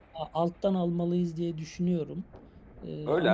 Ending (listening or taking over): taking over